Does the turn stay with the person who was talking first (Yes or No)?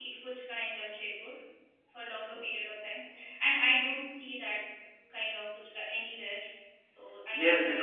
No